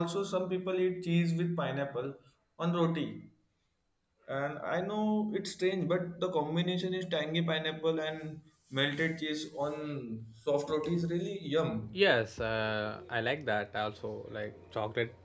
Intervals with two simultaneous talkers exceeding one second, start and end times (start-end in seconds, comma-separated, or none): none